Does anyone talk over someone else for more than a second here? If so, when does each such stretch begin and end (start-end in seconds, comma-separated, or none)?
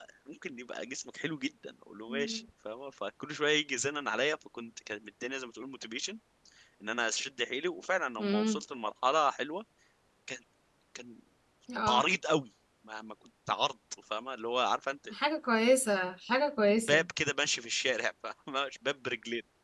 none